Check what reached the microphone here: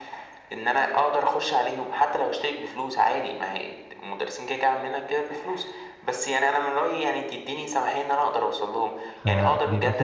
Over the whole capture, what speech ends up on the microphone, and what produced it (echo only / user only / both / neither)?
both